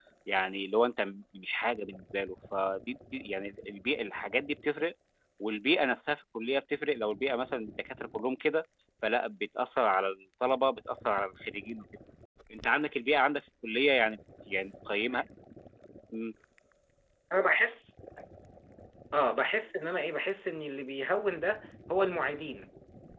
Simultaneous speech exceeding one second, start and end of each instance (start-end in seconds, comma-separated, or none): none